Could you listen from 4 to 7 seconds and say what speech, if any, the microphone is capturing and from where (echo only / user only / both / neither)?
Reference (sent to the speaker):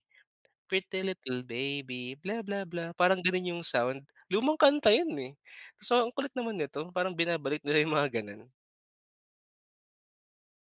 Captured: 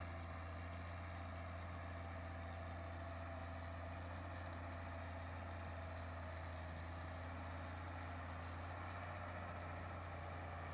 neither